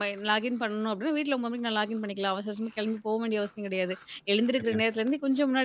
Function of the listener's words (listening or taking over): listening